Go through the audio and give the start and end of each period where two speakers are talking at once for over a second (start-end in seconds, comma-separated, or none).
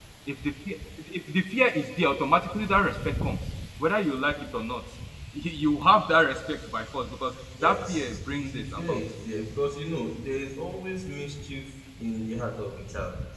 7.6-9.0